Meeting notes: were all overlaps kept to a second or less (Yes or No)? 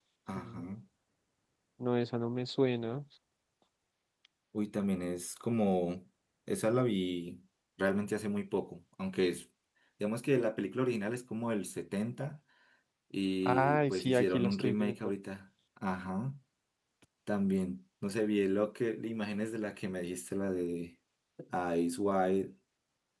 No